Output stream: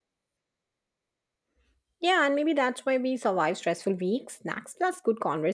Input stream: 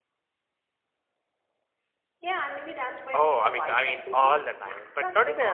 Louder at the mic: user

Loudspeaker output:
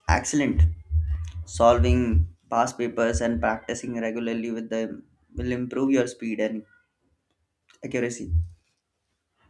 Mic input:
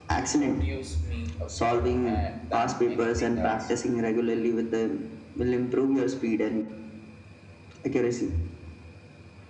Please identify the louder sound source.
echo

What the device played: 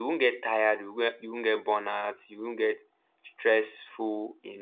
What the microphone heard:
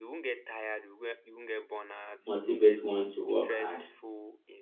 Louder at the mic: user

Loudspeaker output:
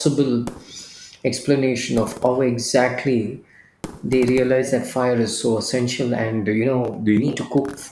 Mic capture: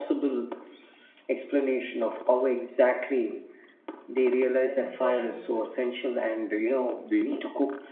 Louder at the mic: echo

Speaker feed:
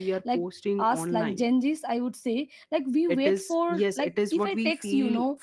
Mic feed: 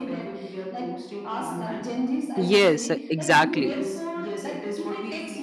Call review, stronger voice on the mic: user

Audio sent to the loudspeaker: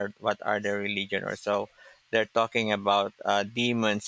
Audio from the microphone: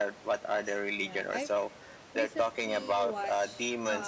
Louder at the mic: echo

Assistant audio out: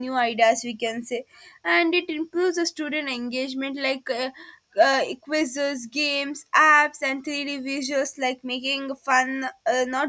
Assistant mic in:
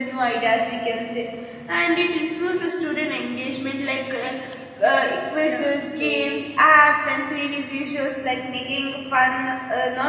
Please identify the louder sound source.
echo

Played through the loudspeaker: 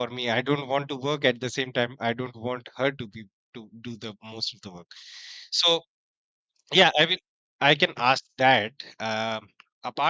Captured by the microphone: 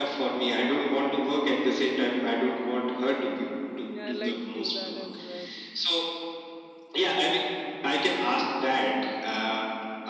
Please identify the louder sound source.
echo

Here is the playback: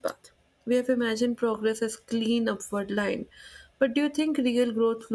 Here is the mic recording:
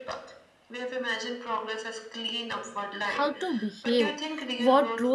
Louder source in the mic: user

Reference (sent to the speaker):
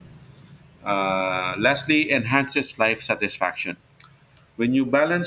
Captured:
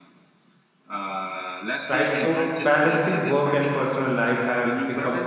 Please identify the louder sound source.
user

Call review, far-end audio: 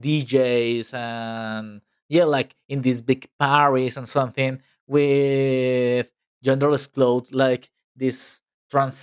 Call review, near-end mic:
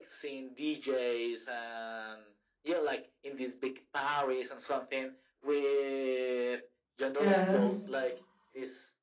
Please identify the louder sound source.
user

